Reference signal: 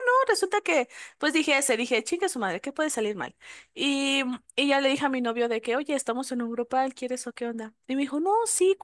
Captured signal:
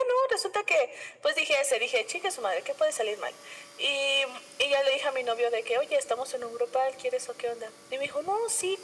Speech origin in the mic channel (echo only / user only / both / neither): echo only